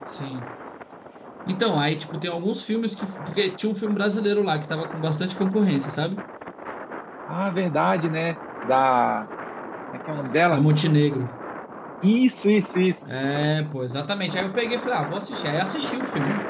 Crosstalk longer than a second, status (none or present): none